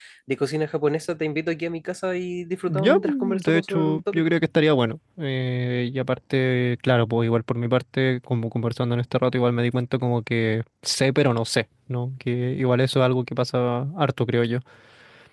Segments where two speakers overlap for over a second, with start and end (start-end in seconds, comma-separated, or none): 2.7-4.3